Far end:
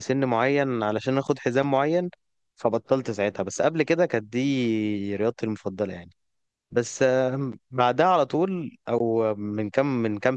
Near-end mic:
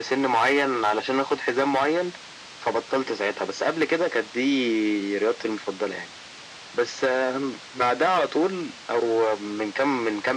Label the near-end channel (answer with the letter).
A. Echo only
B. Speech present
A